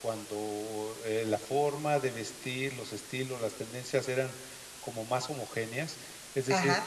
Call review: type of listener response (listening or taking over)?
listening